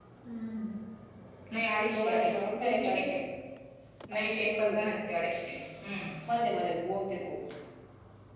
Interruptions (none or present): present